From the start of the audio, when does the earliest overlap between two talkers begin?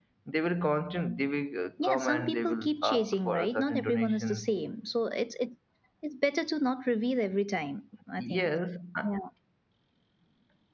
1.8 s

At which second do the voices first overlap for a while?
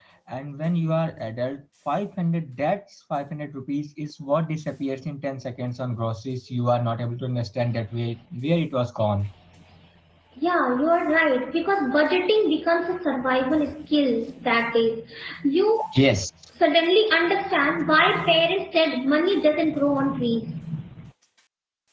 none

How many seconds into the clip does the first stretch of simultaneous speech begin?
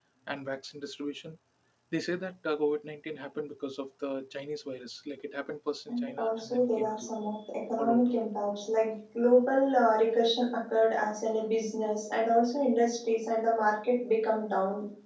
5.9 s

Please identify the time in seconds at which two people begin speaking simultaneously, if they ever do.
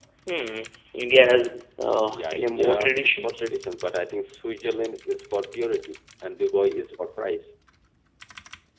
2.1 s

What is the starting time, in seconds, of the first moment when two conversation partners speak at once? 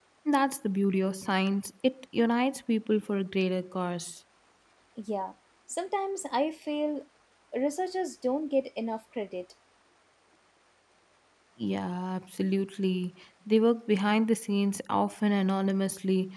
none

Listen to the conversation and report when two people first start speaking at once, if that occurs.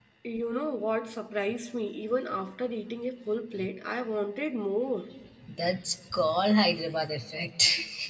none

